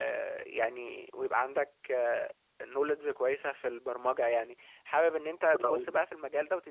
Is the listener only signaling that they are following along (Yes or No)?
Yes